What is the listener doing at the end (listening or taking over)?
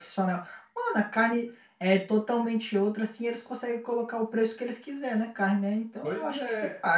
taking over